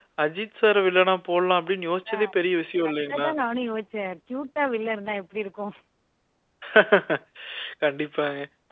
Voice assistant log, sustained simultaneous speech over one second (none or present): none